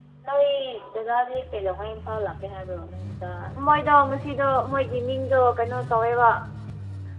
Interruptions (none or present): none